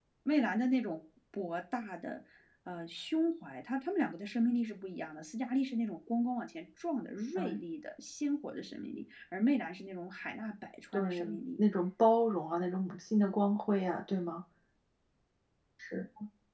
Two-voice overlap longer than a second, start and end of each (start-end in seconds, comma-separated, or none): none